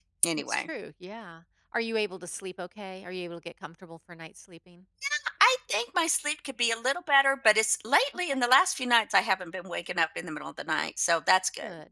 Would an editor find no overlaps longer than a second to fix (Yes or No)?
Yes